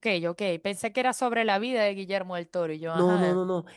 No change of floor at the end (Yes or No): No